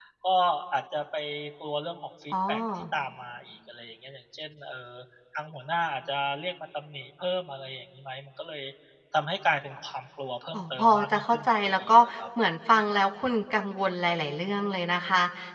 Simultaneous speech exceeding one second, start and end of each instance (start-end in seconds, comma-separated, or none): 10.5-12.2